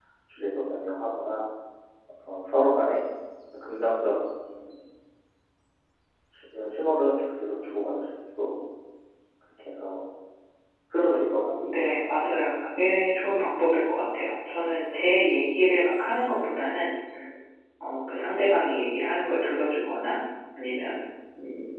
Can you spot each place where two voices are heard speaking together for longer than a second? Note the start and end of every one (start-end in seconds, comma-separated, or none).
11.3-12.7